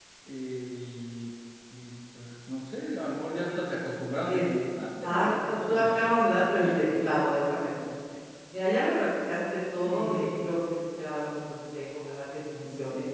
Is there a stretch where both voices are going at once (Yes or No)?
Yes